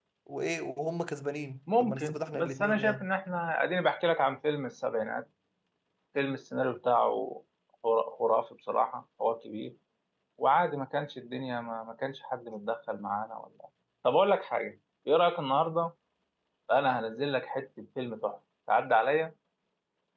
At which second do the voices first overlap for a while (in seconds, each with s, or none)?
1.7 s